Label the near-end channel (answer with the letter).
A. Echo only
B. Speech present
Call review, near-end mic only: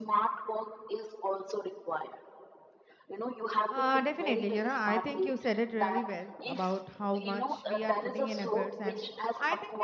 B